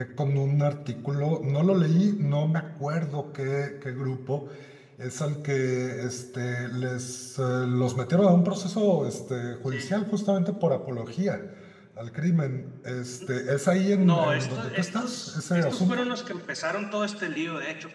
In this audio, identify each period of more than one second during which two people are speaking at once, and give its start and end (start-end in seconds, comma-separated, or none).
14.0-16.1